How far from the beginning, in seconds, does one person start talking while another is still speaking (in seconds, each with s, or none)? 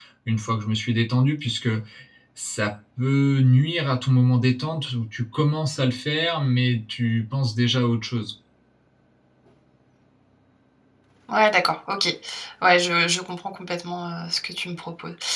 none